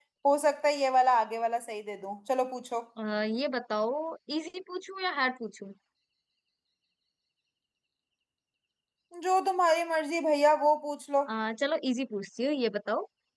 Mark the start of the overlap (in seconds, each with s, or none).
none